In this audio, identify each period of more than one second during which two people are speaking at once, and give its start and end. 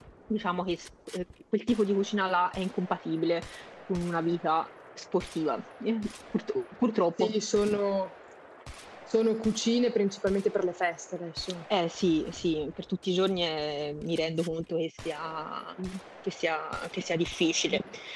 none

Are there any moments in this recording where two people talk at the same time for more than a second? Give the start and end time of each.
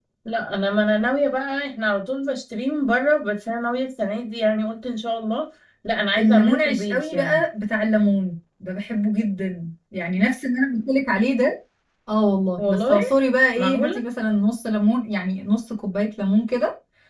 6.2-7.4

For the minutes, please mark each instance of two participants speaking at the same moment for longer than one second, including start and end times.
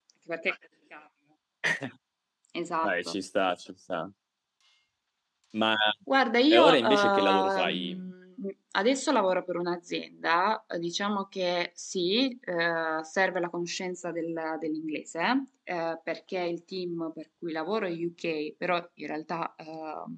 6.5-8.0

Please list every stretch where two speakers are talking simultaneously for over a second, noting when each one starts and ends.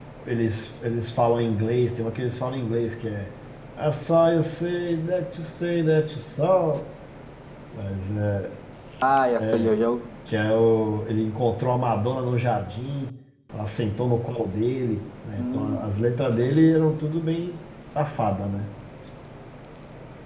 none

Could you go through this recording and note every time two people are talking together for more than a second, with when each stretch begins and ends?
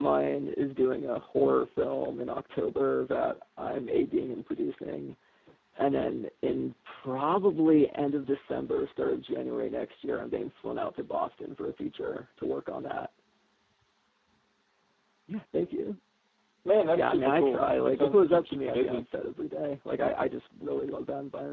16.9-19.0

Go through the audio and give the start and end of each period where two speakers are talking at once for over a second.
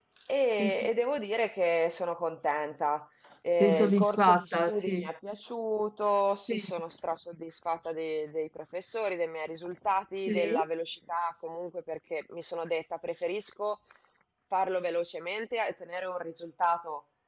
3.6-5.1

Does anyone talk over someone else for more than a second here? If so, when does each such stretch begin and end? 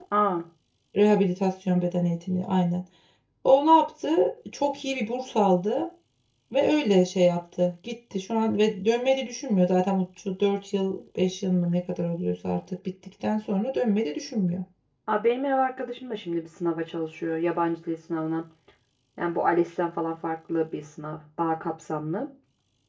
none

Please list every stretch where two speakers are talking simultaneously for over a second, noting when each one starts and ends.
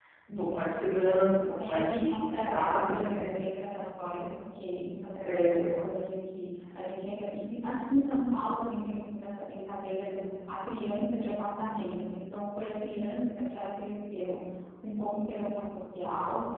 1.6-3.3

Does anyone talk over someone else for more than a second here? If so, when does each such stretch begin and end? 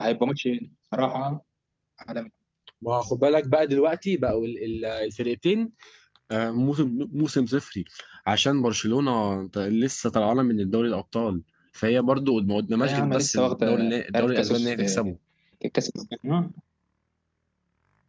12.8-15.1

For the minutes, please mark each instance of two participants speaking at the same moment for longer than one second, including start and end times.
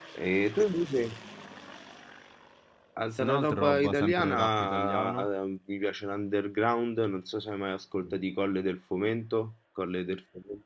3.2-5.2

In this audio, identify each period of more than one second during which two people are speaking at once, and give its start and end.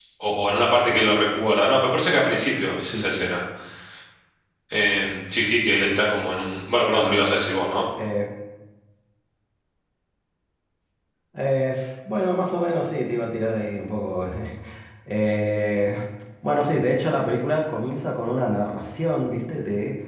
none

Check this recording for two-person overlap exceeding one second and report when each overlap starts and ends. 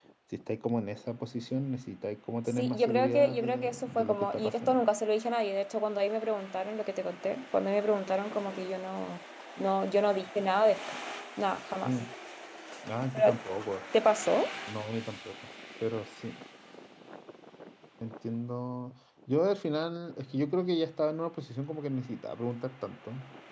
2.5-4.8

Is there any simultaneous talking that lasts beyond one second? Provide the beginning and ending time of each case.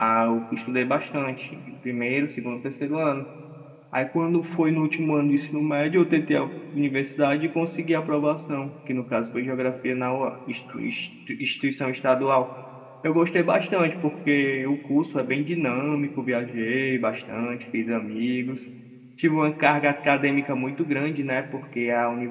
none

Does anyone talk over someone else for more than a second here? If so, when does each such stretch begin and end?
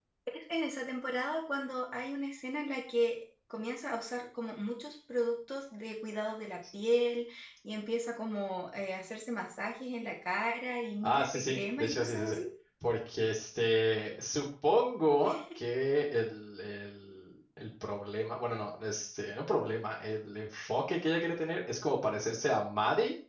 11.0-12.4

